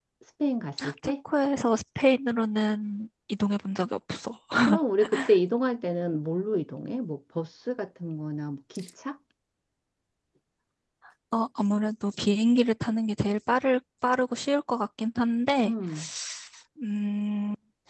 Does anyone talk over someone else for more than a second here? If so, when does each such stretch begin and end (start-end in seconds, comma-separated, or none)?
none